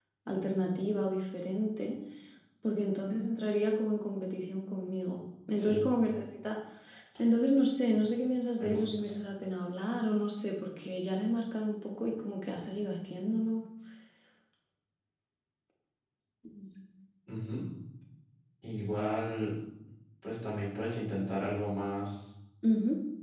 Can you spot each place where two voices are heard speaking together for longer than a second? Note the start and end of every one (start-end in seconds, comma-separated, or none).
none